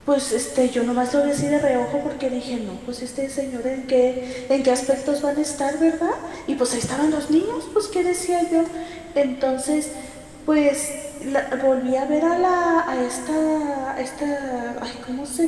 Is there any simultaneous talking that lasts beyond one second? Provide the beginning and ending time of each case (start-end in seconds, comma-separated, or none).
none